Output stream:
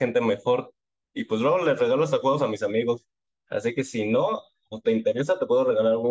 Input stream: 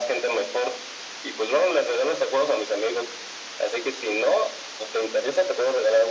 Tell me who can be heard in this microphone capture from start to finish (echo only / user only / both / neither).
echo only